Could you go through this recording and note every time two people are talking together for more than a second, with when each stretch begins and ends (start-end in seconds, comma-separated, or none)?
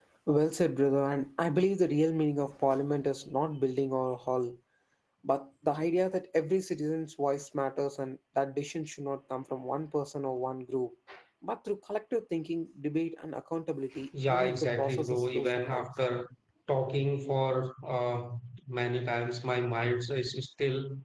14.3-15.9